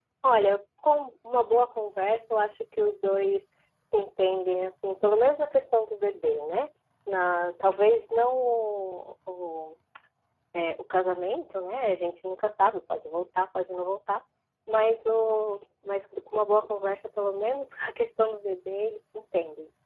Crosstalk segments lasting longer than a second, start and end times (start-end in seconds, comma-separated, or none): none